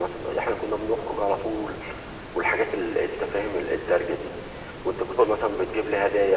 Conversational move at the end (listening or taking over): listening